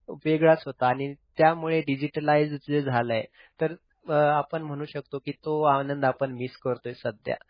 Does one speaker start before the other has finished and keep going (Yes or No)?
No